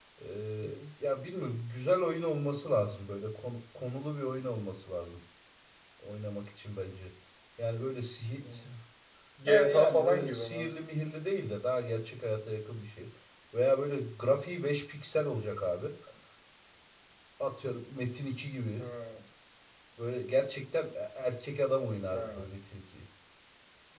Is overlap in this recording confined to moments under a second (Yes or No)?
No